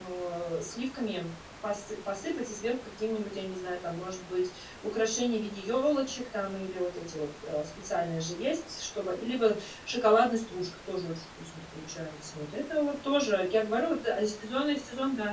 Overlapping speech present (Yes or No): No